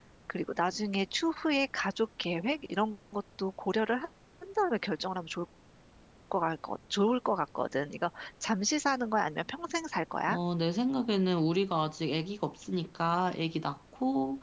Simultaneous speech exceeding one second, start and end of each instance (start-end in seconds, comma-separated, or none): none